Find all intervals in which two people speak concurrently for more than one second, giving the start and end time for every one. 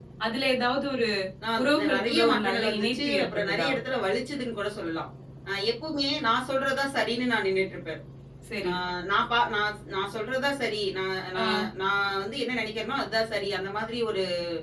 1.6-3.7

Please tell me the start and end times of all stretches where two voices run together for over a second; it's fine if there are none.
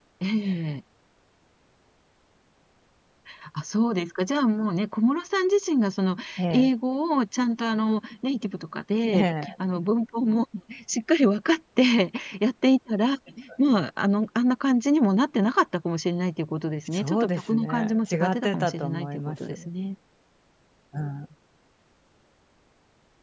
16.9-19.6

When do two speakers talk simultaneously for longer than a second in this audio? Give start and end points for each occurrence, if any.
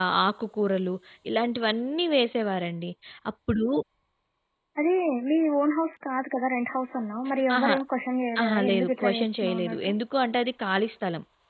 8.4-9.9

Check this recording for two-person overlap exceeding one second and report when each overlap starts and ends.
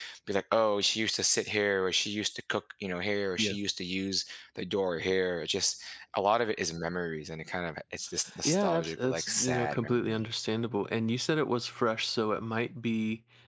8.4-10.2

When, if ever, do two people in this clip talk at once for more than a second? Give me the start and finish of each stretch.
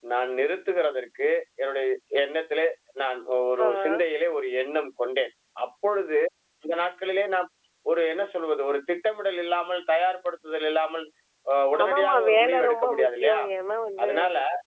11.8-13.4

